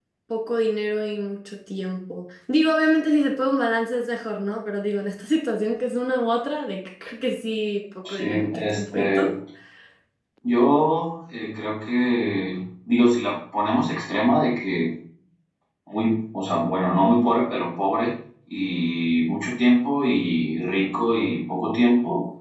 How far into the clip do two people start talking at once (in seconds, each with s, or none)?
8.1 s